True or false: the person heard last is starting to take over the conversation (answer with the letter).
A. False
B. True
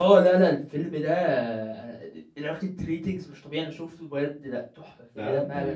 B